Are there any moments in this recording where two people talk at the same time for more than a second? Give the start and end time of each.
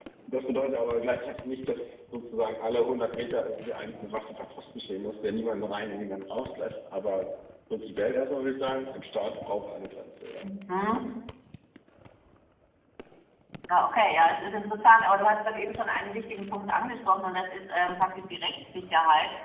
none

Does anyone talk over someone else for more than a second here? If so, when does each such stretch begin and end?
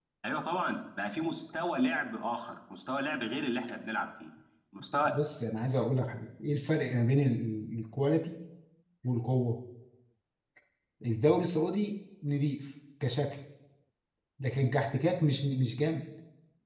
none

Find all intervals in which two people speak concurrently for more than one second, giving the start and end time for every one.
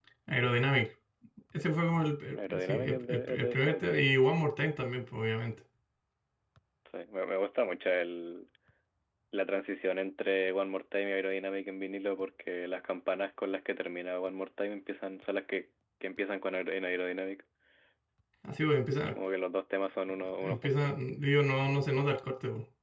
2.5-3.9

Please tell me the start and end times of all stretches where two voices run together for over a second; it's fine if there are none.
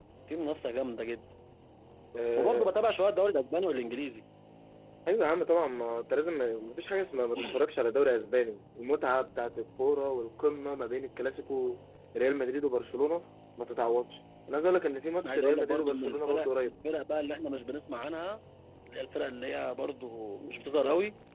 15.3-16.7

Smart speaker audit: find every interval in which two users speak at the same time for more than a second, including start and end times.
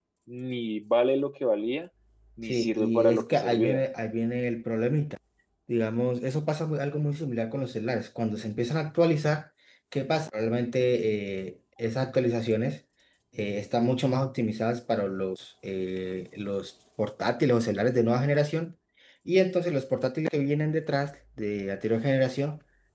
2.5-3.8

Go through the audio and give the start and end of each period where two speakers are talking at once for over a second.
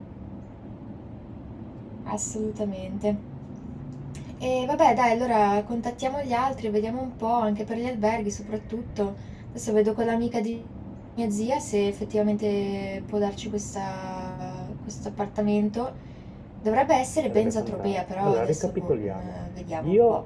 17.3-19.3

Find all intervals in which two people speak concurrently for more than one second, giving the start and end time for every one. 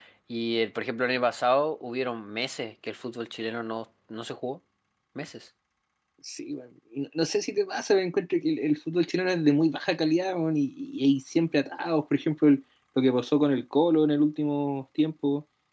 none

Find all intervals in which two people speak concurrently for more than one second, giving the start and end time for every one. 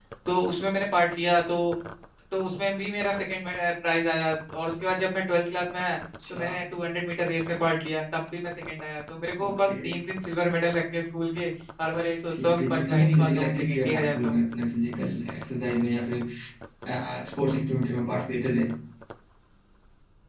12.3-14.4

